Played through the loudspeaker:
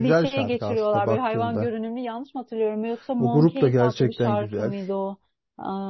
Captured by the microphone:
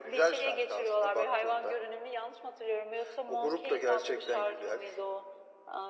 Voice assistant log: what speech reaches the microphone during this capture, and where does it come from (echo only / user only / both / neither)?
echo only